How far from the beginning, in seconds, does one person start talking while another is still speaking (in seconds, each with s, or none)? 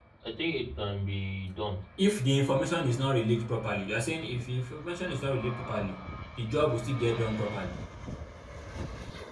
none